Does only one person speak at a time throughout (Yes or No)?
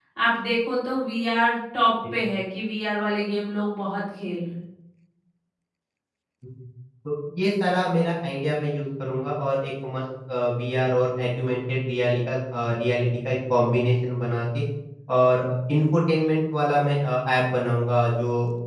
Yes